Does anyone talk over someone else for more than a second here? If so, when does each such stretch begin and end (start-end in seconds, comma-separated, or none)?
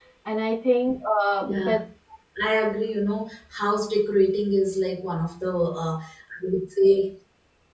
none